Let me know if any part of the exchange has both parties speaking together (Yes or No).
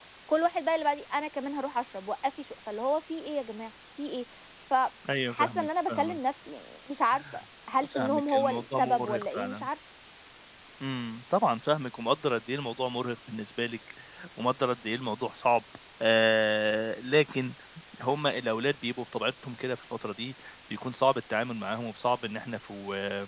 Yes